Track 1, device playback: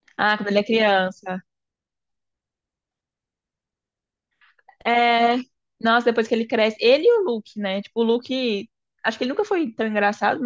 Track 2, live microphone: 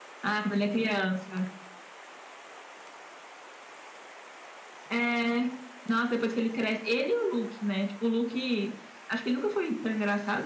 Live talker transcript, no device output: none

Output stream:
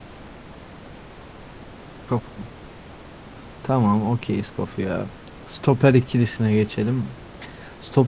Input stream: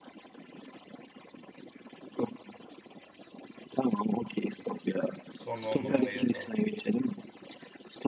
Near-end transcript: Sonra on numara yazalım.

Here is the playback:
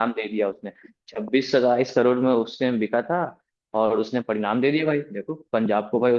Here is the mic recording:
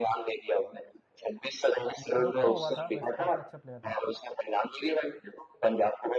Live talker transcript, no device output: मुझे दुख तो हुआ था वैसे काफी अच्छा प्लेयर था

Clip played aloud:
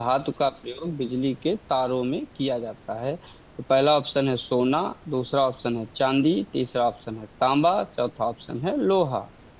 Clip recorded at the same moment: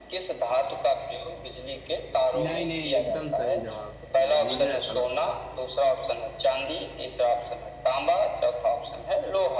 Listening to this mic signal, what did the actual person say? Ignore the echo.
नहीं नहीं एकदम सही जवाब है मेरा मुझे ऐसा लगता है

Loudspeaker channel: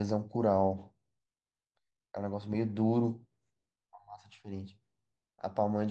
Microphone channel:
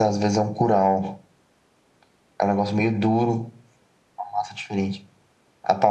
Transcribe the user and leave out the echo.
none

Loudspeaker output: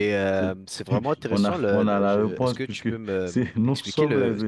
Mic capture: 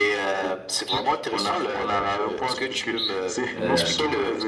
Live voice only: Euh,

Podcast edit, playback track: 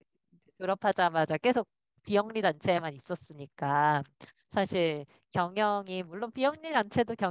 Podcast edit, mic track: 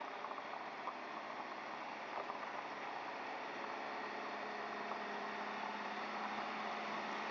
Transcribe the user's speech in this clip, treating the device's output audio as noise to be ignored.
none

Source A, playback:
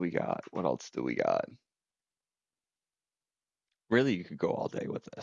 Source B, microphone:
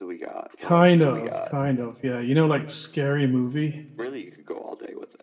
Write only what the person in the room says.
kind of, kind of. Yeah, you know, like scary movie,

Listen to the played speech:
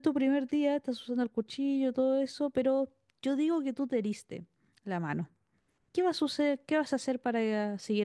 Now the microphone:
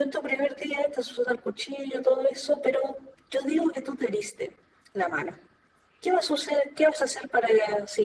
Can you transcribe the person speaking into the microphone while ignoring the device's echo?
none

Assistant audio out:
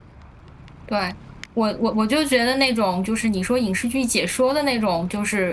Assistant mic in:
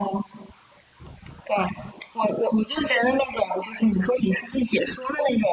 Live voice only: none

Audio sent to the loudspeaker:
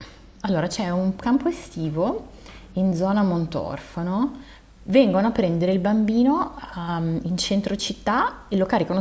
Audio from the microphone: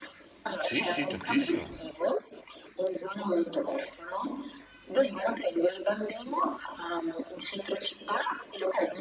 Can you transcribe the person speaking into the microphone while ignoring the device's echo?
Sì, sì, tantissimo.

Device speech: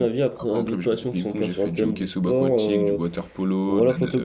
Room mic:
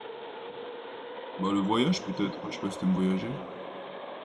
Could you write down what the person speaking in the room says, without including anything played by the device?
Bah, le voyage peut-être, hein, je sais pas si t'aimes voyager?

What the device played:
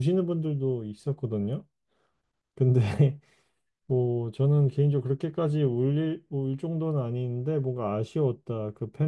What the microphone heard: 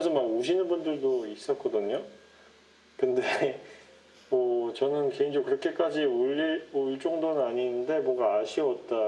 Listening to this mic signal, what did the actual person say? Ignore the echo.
none

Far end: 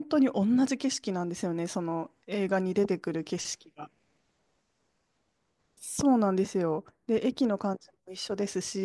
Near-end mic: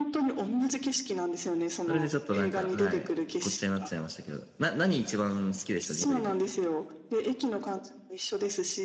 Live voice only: それでちょっとなんか、はい、ごっちゃになっちゃいましたけど。な、何一番好きでしたジブリで。

